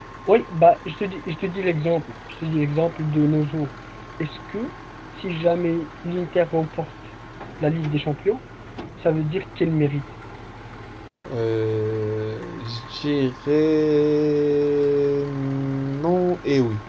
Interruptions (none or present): none